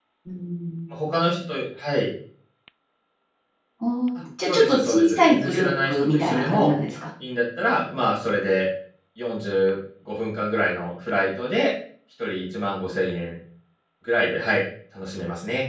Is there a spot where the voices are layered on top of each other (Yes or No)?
Yes